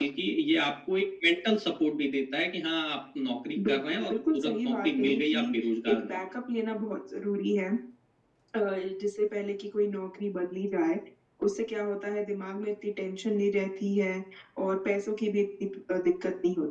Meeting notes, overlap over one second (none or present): present